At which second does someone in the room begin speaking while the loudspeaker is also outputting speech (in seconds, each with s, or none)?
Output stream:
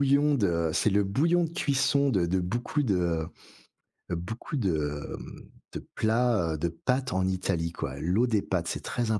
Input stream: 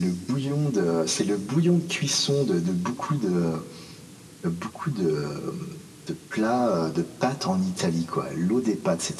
none